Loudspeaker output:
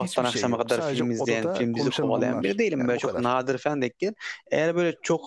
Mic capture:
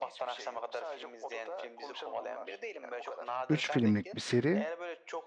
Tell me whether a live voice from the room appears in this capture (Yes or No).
Yes